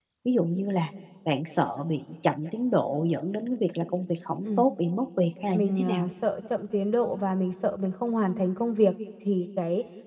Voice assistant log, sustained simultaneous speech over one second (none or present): none